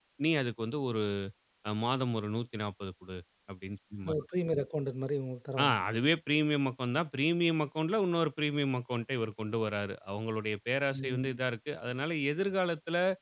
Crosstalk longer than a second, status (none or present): none